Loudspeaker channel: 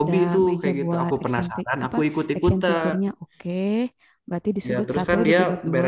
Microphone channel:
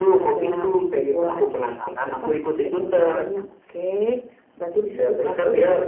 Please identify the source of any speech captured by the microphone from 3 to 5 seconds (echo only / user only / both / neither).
echo only